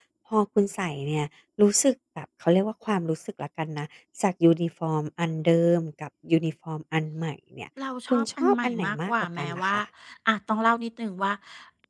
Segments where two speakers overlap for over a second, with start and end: 8.1-9.8

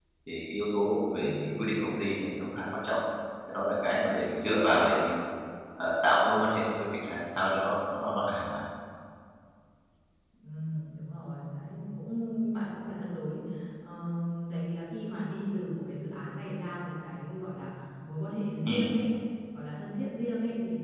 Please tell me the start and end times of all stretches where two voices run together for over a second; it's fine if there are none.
none

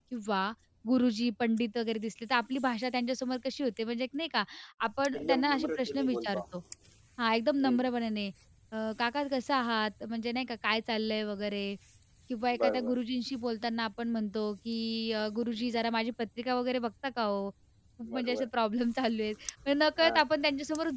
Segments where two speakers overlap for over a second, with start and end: 5.2-6.4

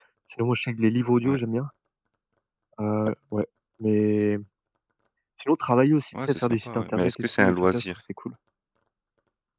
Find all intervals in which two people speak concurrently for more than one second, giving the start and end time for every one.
6.3-7.8

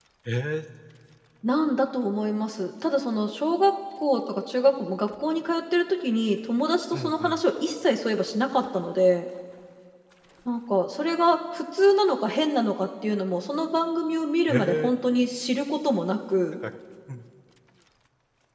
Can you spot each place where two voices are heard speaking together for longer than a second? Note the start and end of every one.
none

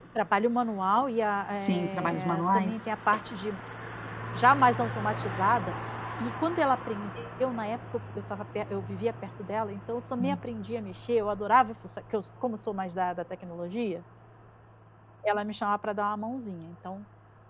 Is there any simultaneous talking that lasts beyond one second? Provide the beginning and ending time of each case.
1.6-2.8

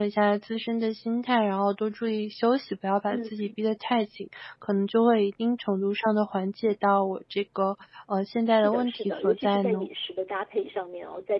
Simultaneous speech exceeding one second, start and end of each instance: 8.5-9.9

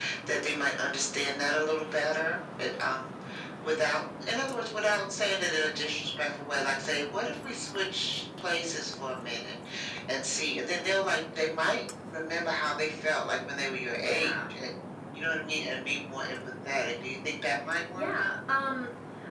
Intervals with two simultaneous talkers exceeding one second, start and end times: none

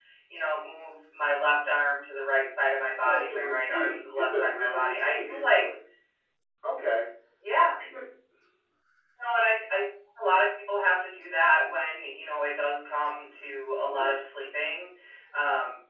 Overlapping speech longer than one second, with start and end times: 3.0-5.6

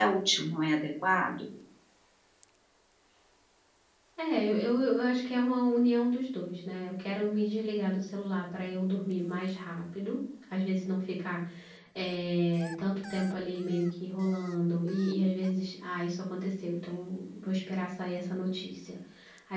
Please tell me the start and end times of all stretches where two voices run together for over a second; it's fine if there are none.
none

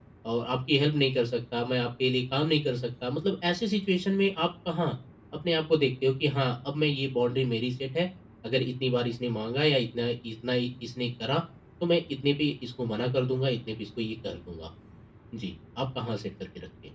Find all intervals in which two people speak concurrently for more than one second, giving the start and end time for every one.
none

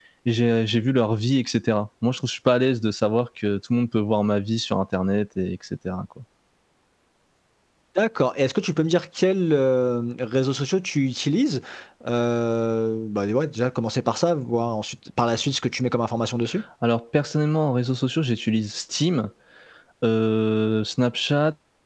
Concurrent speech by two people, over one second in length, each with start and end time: none

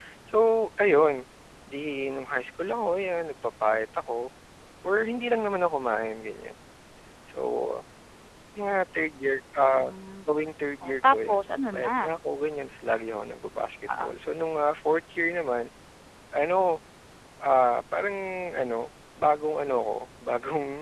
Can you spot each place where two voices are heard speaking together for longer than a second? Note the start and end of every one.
10.8-12.1

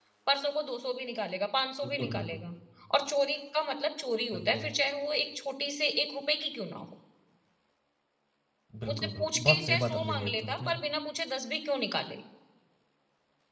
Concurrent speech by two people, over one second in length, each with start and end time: 8.9-10.8

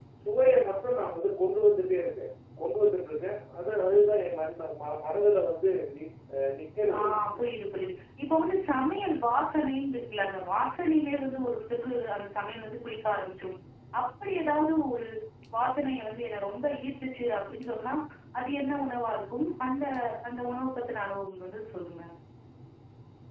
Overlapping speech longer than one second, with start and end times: none

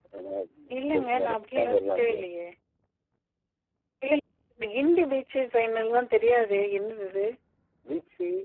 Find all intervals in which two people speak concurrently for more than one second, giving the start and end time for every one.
0.8-2.3

